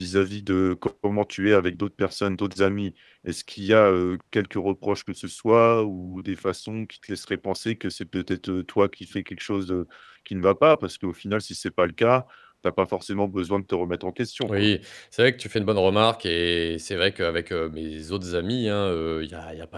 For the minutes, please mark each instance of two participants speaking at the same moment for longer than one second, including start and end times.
none

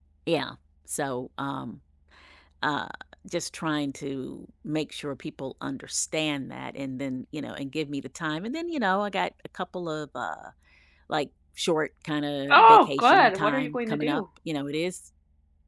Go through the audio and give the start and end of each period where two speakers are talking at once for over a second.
12.5-14.2

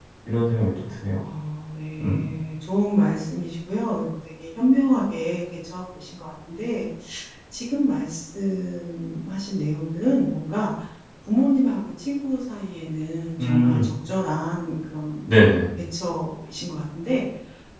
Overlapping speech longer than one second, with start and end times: none

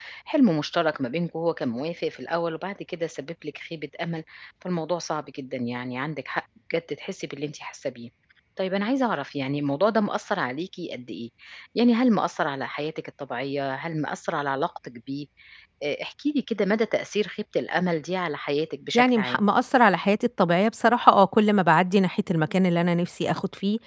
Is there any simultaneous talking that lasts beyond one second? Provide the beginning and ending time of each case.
none

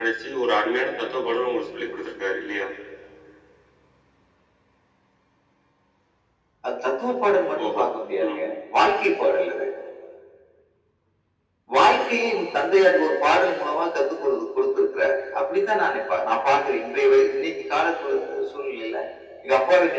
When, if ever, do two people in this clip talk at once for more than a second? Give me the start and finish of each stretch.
none

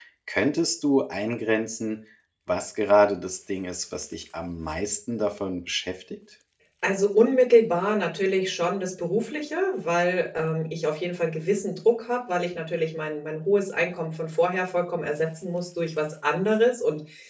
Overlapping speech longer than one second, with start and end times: none

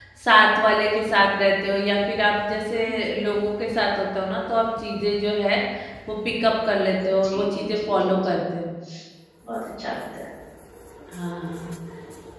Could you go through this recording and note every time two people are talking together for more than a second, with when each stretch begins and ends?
7.1-8.4

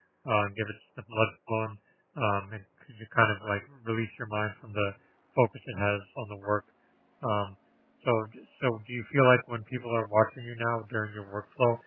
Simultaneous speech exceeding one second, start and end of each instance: none

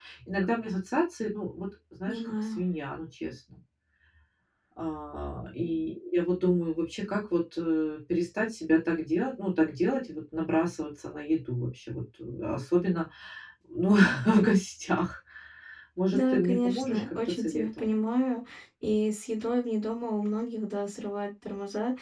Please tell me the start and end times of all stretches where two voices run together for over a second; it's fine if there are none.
16.1-17.9

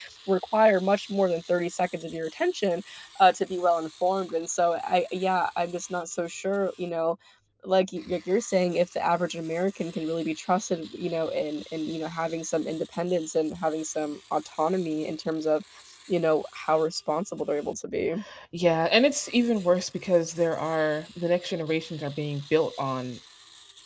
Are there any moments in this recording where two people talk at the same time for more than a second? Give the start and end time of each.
none

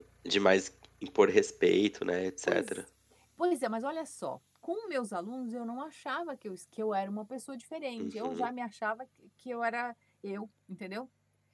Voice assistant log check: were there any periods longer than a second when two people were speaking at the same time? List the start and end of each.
none

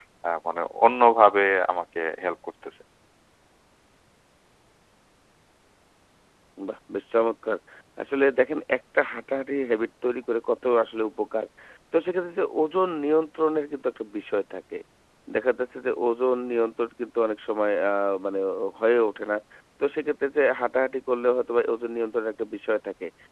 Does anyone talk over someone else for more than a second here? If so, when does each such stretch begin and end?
none

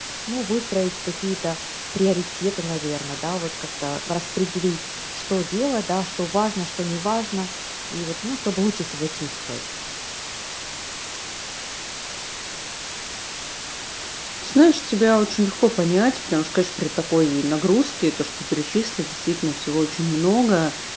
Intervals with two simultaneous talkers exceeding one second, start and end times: none

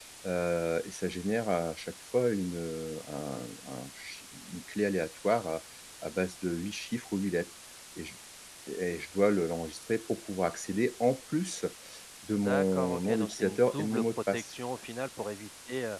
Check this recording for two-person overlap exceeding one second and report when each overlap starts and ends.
12.3-14.5

